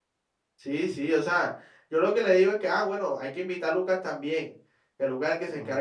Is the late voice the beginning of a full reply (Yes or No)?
No